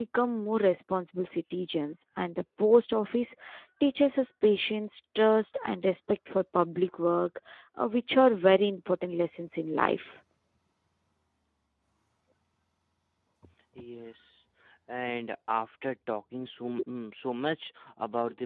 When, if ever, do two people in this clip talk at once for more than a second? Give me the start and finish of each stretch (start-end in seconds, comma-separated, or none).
none